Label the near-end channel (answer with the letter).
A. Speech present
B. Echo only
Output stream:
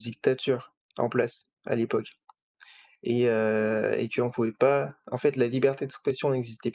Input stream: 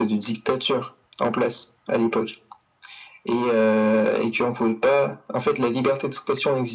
B